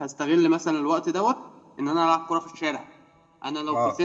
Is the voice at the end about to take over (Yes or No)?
Yes